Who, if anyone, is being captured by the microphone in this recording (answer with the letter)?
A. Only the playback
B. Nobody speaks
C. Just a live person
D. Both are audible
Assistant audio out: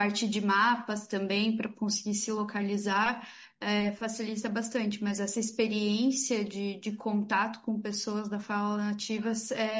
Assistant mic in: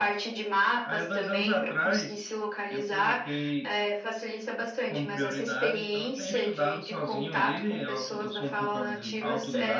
D